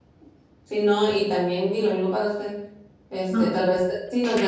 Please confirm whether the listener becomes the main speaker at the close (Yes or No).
No